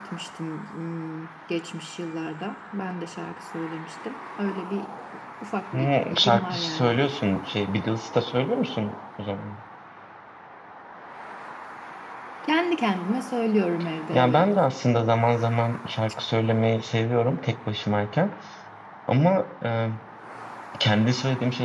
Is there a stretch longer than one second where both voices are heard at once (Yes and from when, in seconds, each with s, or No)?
Yes, from 5.7 s